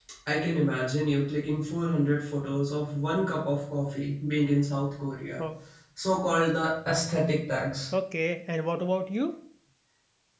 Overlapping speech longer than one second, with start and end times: none

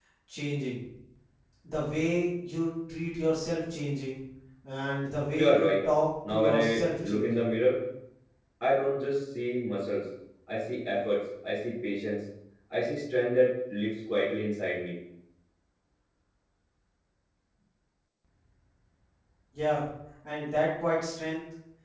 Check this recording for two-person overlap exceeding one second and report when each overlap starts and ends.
6.3-7.5

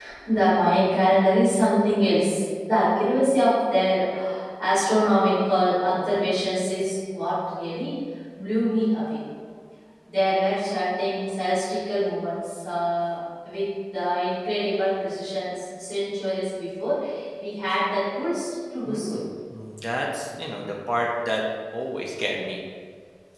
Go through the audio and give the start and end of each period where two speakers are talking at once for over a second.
none

